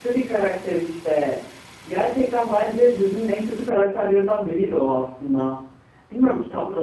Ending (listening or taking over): listening